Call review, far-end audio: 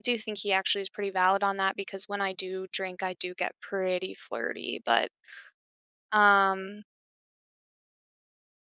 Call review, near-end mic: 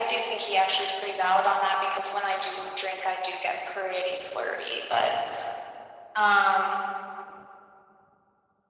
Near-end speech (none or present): none